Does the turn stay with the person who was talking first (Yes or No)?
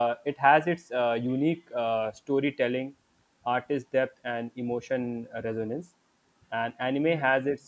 Yes